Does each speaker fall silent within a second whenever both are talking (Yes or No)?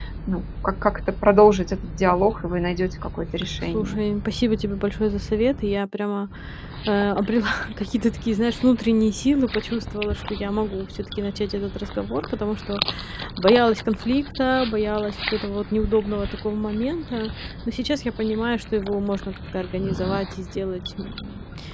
Yes